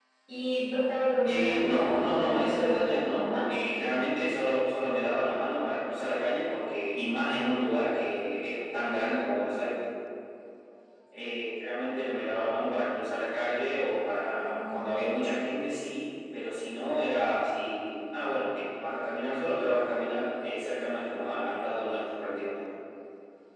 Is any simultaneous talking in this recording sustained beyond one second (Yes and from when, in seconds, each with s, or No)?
Yes, from 1.2 s